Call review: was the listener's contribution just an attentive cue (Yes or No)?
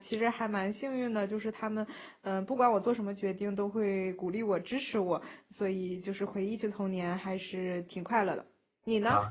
No